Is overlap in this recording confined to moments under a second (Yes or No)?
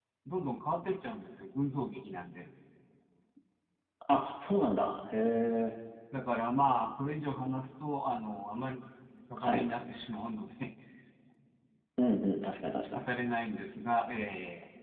Yes